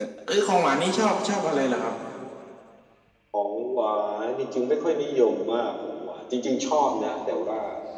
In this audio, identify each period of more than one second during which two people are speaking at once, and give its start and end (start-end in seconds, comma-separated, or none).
none